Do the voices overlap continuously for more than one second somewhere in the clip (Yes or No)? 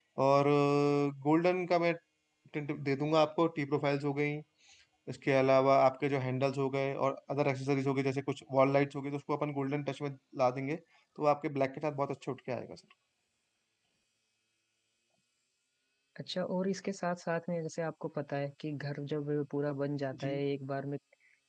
No